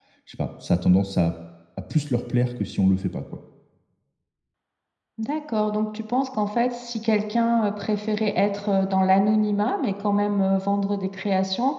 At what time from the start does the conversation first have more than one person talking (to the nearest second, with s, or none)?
none